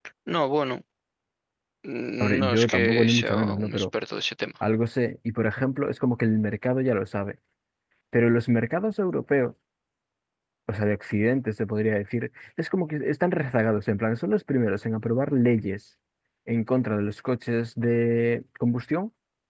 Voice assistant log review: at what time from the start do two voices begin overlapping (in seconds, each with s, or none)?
2.2 s